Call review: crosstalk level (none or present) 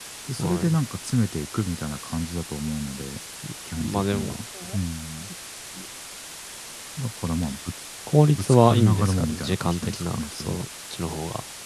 present